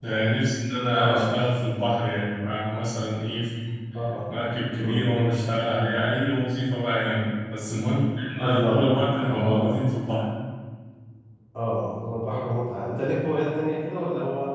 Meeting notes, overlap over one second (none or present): present